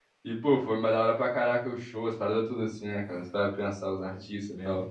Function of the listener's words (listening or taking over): taking over